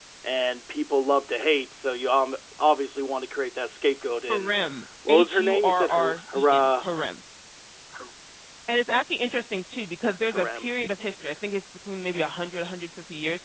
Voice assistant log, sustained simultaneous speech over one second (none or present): present